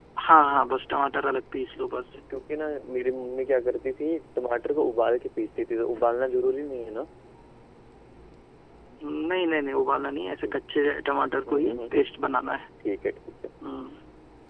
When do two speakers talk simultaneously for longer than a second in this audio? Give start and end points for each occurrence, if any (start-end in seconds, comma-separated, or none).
none